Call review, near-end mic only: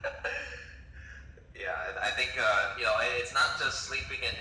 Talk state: echo only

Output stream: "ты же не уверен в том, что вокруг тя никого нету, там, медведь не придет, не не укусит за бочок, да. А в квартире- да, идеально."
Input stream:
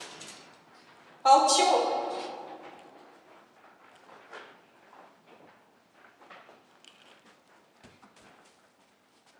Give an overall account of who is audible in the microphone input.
user only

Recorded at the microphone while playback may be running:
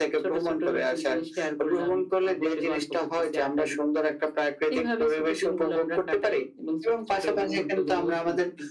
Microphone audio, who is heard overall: echo only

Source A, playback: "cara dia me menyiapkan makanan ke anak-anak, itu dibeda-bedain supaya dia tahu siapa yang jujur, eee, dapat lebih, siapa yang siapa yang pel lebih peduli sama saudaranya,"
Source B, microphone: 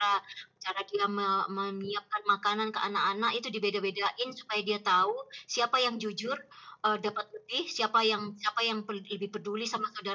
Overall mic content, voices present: echo only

